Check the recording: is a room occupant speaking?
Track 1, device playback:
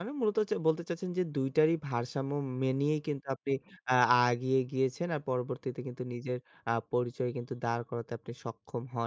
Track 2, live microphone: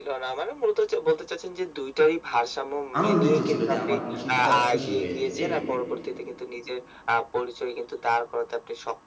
Yes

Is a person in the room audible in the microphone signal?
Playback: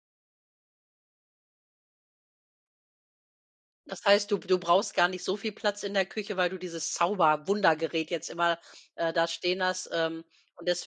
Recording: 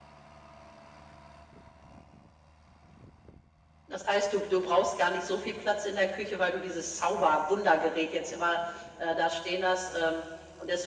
No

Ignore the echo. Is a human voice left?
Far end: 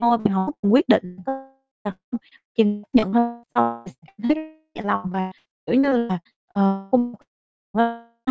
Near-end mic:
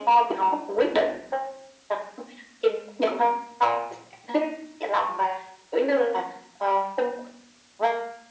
No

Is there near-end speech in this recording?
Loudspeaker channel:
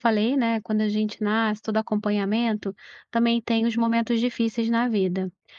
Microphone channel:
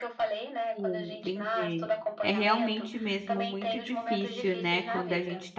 Yes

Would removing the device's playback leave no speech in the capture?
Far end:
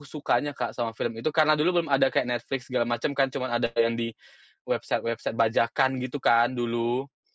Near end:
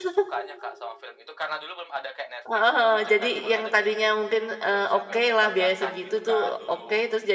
No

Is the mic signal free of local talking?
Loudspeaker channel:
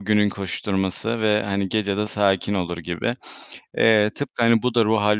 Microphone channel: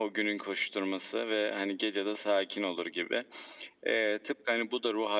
Yes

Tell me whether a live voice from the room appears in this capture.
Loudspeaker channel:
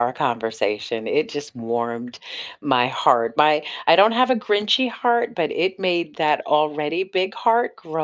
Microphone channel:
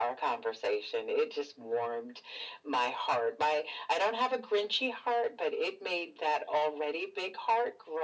No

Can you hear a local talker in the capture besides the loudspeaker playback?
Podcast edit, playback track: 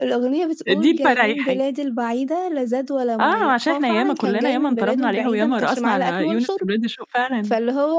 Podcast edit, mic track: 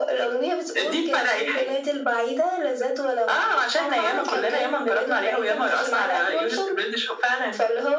No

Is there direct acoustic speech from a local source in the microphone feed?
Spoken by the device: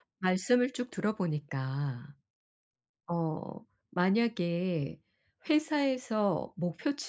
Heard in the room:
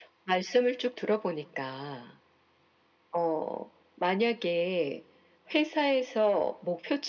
No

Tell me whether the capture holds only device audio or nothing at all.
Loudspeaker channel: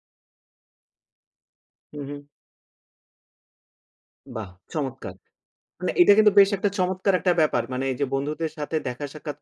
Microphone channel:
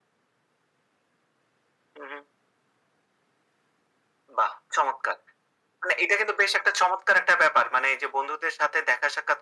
Yes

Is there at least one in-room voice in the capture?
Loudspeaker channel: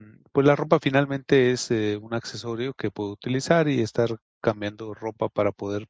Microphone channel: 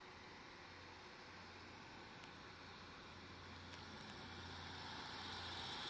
No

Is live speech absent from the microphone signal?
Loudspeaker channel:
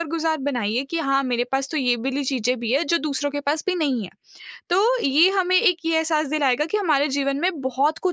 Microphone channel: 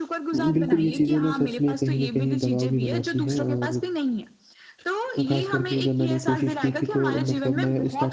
No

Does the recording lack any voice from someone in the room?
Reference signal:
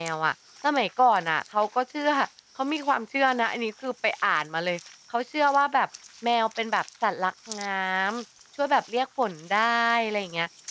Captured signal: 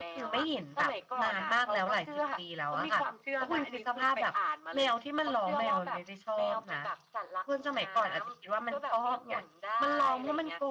No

